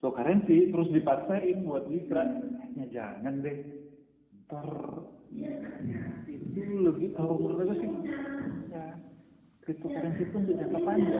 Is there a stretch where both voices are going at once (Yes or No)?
Yes